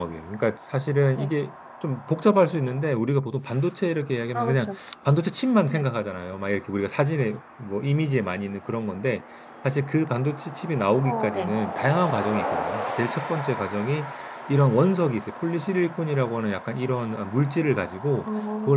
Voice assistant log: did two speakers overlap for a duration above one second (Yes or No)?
No